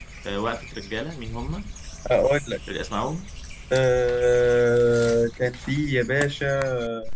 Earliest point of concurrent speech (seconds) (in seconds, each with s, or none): none